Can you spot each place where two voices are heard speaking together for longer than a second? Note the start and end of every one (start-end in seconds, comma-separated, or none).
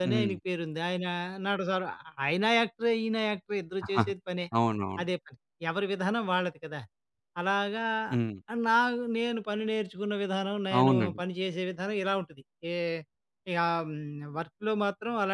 none